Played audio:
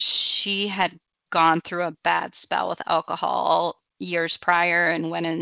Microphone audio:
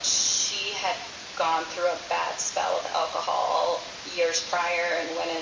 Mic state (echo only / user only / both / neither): echo only